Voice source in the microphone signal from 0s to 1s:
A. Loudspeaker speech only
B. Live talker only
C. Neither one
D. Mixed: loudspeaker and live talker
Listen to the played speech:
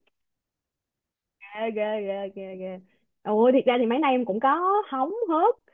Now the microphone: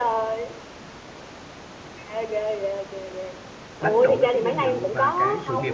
A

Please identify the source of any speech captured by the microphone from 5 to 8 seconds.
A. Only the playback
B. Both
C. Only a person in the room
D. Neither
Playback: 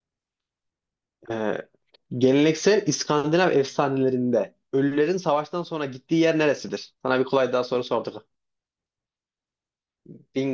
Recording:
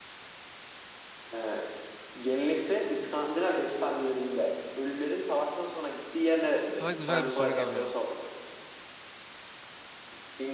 B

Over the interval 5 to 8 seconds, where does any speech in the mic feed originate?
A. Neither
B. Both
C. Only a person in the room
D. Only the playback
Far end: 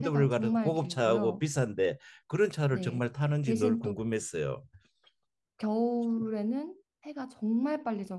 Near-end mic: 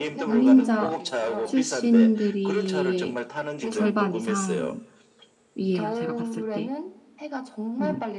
B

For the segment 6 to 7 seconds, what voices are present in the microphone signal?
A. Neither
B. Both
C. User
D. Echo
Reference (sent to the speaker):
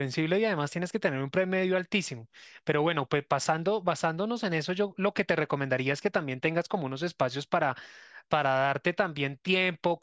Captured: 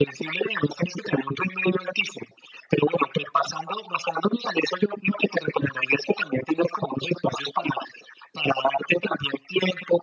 D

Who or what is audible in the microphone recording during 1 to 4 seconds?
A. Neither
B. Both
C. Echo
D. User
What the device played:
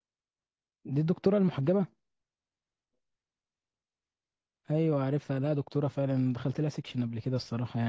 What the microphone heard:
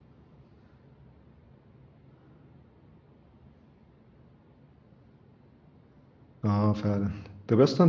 A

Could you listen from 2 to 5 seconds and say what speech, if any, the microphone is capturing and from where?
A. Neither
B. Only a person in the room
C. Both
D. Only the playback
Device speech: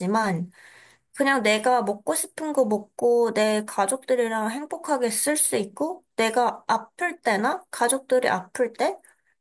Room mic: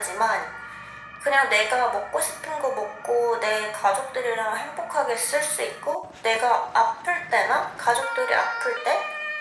D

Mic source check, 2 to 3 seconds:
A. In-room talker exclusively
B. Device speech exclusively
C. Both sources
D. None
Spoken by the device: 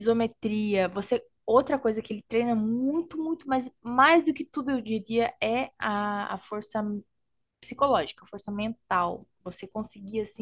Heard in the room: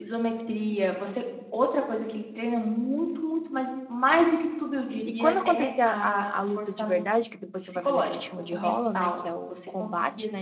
B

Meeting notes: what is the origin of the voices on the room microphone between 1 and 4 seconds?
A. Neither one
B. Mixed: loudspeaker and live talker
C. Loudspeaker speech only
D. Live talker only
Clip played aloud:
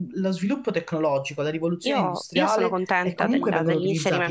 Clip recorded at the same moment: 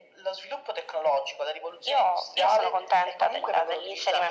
C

